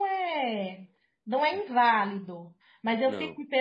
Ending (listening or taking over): listening